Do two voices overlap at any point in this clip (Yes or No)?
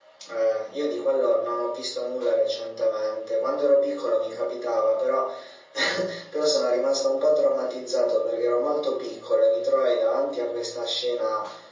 No